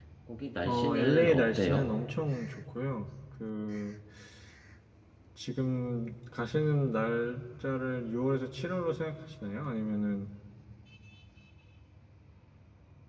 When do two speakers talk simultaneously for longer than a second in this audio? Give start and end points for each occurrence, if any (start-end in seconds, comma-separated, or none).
0.7-1.9